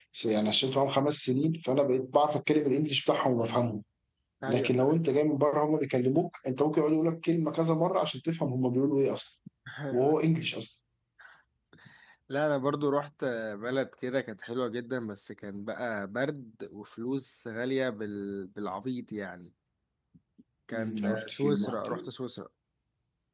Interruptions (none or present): present